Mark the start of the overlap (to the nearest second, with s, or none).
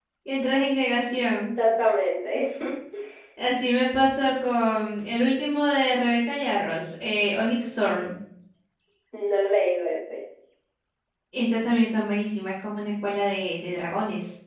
none